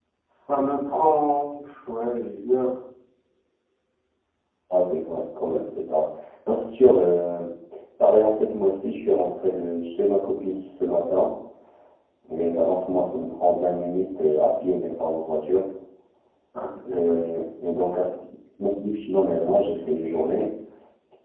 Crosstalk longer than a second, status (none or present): none